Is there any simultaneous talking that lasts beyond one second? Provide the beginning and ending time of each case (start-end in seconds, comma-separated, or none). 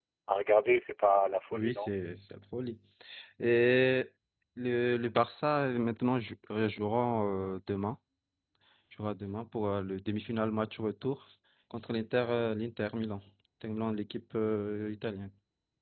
none